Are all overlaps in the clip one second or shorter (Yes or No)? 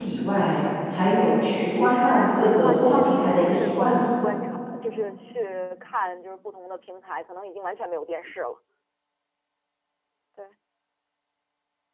No